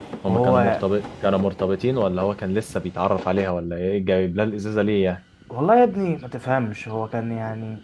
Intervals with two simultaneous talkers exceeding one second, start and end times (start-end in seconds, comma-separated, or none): none